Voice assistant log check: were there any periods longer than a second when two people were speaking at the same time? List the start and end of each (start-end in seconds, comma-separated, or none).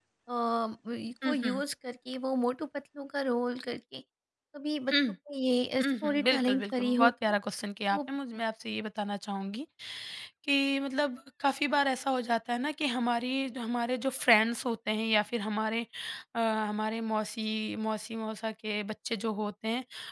5.8-7.1